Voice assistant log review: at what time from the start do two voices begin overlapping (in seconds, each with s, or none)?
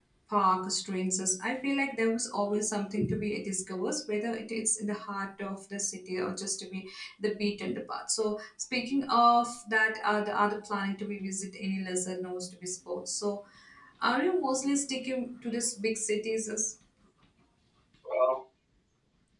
none